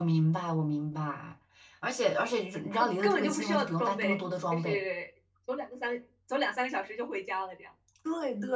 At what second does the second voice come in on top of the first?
2.7 s

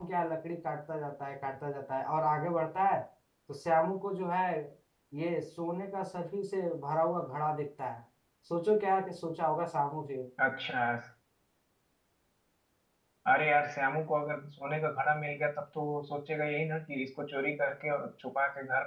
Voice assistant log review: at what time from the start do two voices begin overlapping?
none

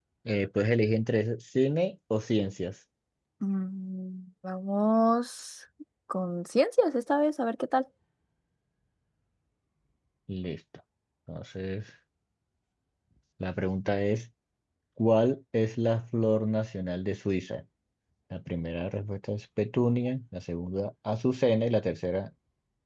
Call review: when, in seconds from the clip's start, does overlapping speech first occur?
none

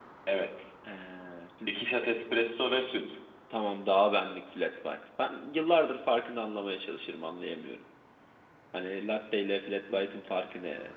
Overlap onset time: none

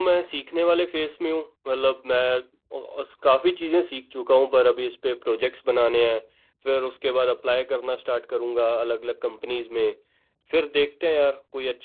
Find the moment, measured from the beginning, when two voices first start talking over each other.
none

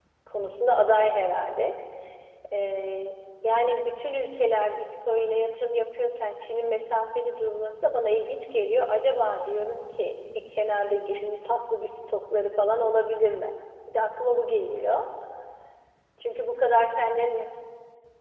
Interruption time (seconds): none

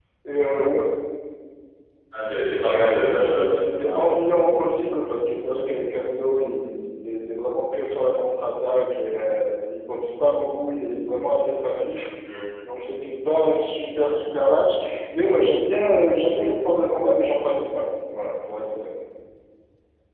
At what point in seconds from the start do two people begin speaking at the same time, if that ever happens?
2.7 s

